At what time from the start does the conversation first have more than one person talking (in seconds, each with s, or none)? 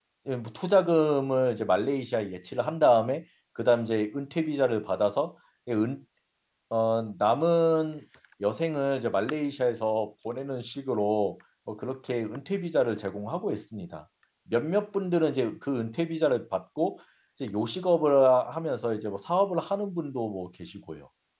none